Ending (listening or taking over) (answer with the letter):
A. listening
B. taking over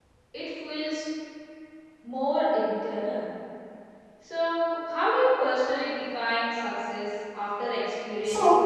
B